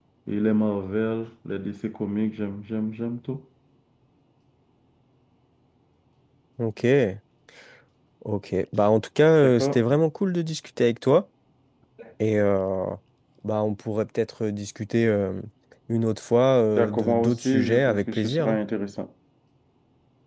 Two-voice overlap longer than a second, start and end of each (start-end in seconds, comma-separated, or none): 16.8-18.6